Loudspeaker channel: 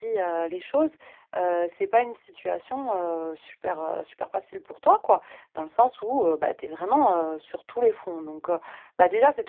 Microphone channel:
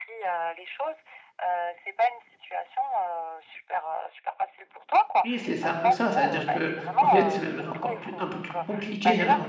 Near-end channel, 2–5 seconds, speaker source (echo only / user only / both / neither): echo only